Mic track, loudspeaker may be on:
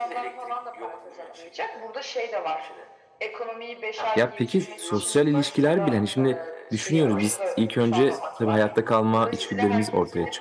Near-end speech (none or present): present